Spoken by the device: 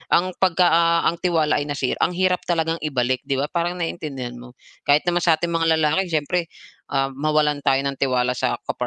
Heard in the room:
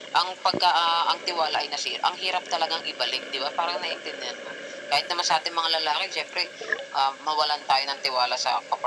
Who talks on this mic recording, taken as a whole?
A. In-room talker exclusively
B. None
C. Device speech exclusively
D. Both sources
C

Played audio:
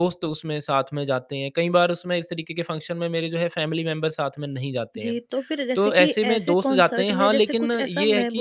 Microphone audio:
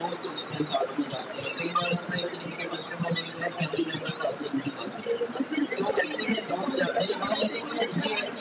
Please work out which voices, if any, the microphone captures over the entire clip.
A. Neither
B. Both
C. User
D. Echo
D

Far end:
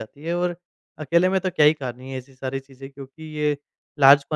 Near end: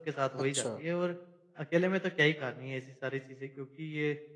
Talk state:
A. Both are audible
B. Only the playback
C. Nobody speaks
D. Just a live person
A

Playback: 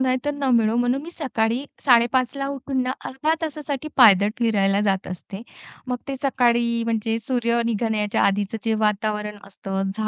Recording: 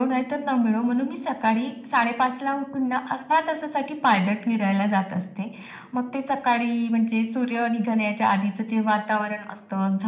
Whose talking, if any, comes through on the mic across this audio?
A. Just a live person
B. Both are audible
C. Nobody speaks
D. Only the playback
D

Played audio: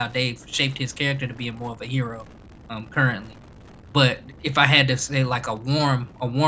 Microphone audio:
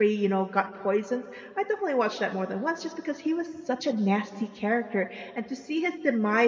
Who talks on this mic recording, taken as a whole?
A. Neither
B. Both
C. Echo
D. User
D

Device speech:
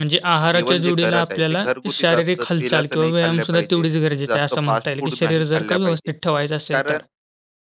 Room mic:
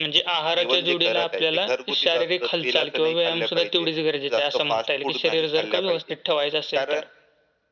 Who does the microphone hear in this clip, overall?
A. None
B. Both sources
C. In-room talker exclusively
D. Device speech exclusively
D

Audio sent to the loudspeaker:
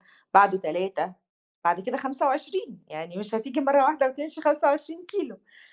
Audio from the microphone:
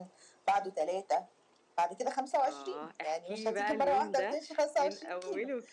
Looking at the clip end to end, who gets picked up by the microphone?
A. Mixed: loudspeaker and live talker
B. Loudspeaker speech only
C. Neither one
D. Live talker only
A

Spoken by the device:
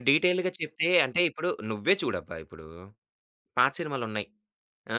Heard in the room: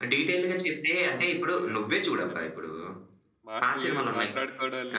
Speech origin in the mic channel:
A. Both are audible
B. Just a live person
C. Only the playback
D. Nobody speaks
A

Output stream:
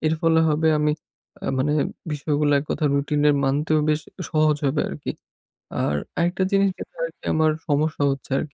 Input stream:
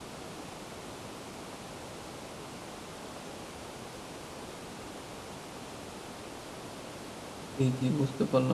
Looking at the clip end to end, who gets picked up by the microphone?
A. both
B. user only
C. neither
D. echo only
B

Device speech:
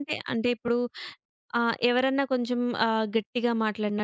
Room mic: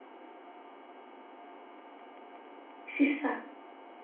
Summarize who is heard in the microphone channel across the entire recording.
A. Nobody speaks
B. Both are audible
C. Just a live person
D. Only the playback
C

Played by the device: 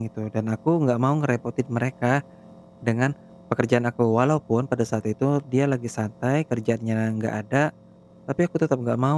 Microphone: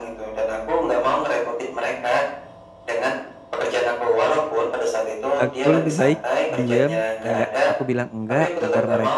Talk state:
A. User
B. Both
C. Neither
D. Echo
B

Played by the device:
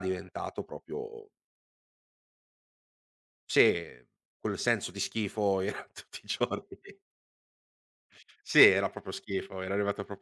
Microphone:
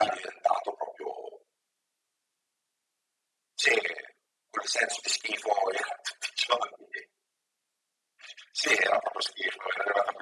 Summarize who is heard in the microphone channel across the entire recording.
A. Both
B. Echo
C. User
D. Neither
B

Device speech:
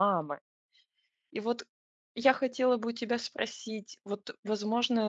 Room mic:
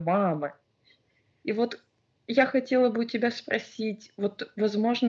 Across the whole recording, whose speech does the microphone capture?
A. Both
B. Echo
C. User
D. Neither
B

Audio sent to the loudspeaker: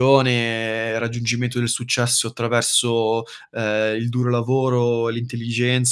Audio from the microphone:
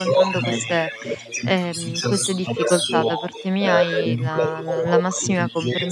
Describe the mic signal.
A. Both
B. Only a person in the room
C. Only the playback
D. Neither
A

